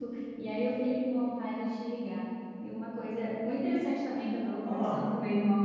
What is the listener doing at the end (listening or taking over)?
listening